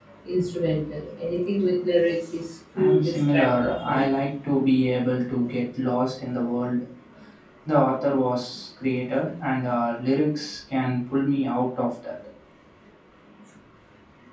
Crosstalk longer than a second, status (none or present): present